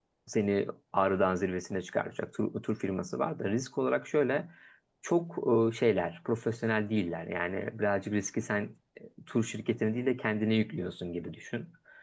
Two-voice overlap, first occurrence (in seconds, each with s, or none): none